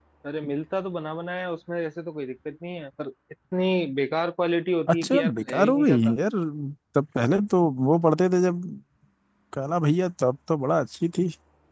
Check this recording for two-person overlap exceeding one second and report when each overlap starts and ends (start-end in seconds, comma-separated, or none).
4.9-6.1